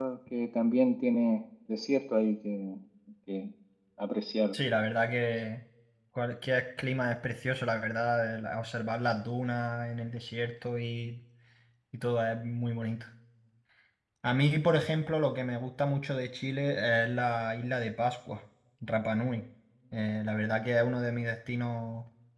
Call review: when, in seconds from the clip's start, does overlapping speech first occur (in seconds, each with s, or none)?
none